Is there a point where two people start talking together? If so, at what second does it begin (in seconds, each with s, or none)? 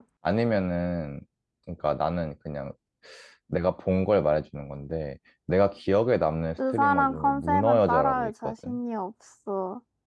6.6 s